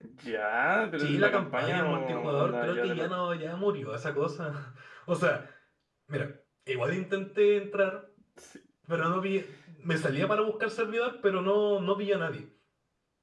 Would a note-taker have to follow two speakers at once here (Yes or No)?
Yes